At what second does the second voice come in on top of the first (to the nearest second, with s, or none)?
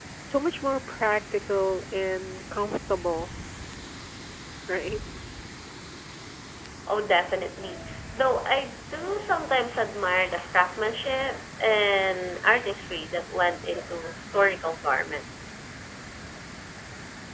none